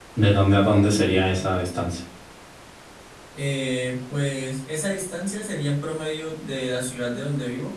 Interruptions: none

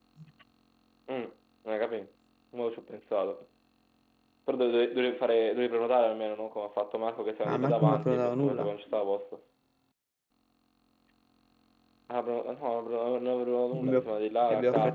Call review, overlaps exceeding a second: present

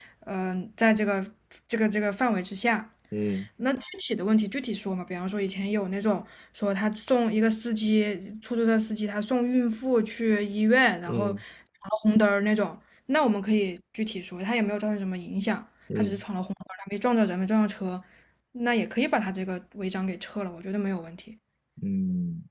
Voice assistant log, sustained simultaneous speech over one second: none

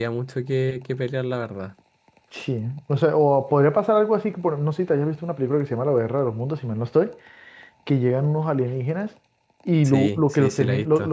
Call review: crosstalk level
present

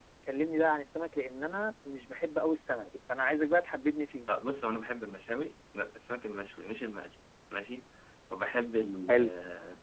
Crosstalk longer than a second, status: none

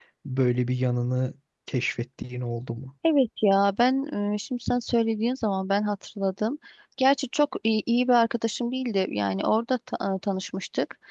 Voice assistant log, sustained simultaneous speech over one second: none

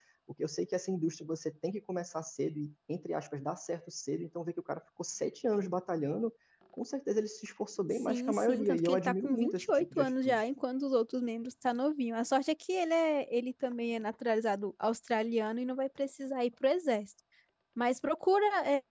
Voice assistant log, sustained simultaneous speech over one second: present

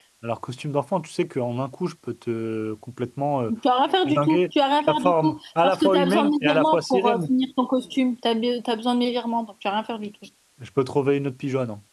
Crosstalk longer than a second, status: present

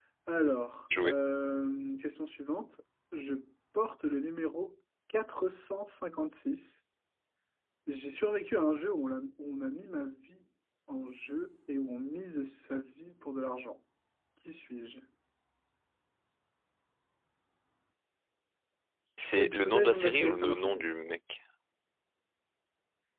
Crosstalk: present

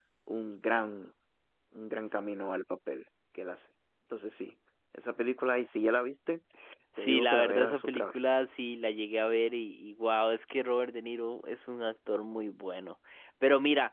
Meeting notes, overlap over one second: present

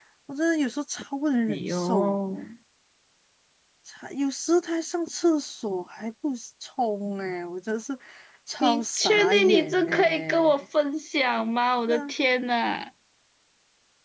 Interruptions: present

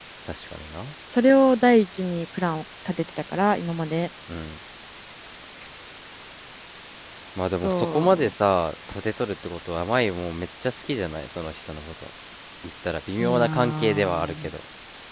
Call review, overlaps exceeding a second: present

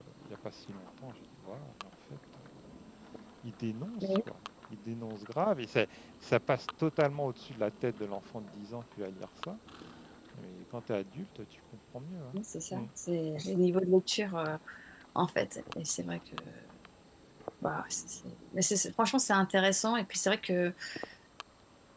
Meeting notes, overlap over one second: none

